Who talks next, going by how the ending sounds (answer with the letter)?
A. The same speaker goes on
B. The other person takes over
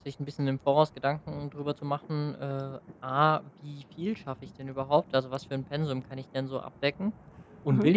A